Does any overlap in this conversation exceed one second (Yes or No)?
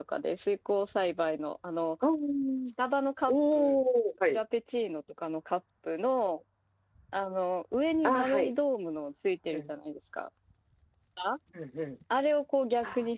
No